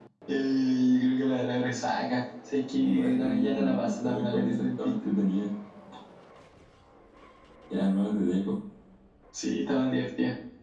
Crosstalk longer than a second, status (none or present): present